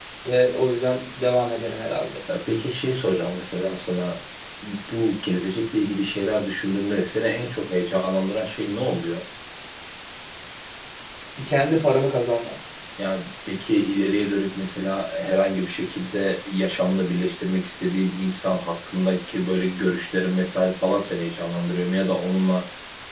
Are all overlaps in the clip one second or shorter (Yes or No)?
Yes